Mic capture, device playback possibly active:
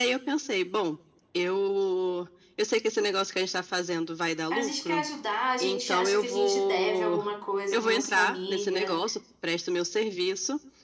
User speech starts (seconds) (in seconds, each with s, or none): 4.5 s